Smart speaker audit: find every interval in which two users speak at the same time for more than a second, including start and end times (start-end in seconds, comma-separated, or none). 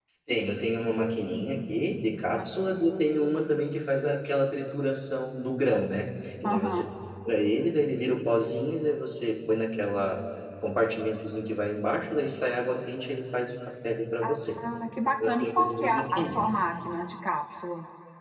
15.2-16.5